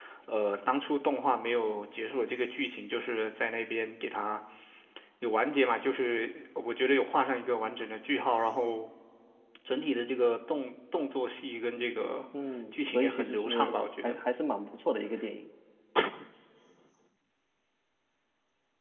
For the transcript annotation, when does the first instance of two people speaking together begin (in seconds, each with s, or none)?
12.7 s